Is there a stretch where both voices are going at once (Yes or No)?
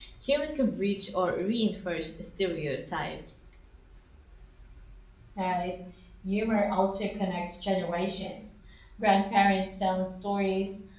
No